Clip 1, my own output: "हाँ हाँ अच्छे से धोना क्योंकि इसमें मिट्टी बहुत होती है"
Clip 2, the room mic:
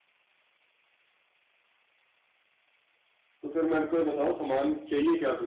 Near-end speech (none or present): present